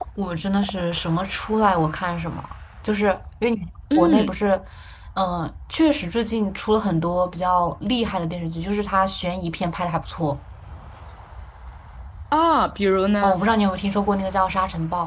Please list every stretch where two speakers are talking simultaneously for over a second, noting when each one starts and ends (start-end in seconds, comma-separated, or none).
none